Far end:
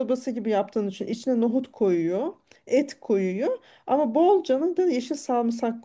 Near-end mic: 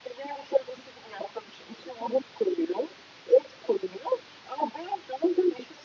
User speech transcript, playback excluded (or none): none